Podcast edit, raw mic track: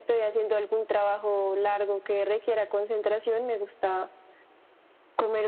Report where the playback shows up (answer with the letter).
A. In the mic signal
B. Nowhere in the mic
A